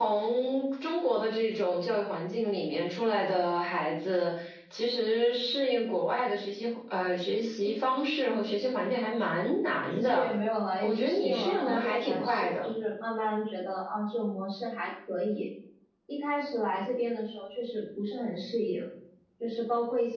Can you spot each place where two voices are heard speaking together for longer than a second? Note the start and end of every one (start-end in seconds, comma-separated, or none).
10.8-12.7